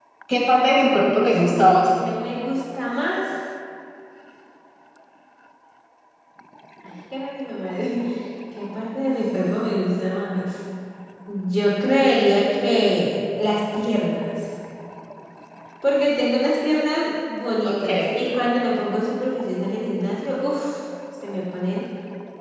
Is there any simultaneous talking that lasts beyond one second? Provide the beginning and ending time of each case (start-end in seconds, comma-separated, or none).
none